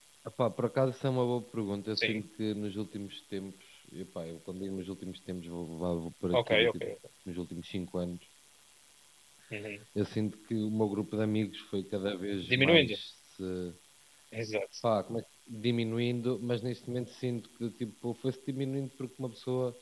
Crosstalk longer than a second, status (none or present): none